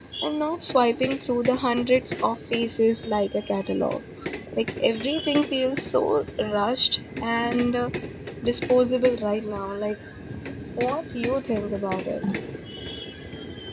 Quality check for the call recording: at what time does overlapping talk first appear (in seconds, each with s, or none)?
none